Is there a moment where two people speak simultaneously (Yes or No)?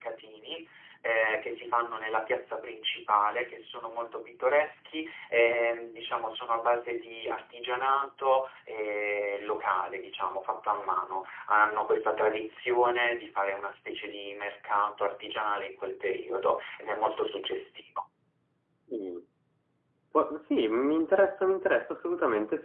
No